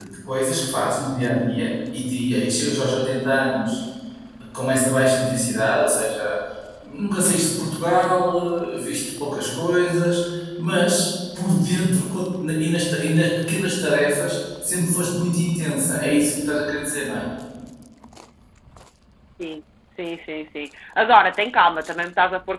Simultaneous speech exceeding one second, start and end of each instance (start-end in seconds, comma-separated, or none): none